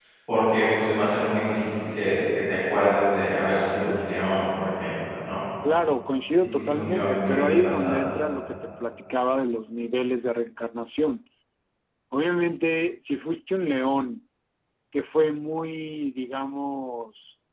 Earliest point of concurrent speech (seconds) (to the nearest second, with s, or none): 7 s